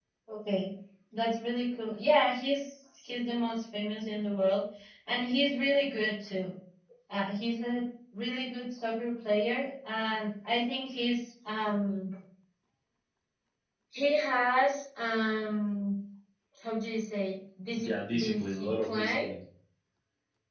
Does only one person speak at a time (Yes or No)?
No